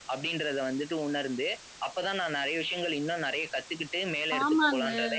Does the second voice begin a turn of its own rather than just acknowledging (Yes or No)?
Yes